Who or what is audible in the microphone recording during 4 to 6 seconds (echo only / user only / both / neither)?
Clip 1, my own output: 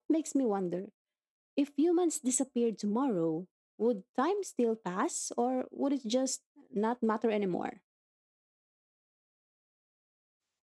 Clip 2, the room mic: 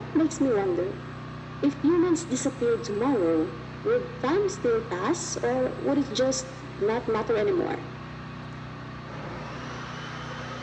echo only